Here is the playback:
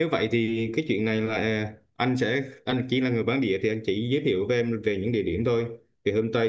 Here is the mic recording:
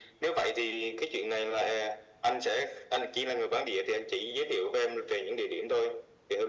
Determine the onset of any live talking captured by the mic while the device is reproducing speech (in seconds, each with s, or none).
none